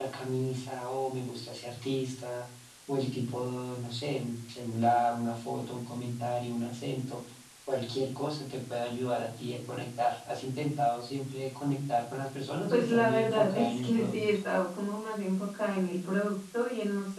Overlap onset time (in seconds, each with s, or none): 12.7 s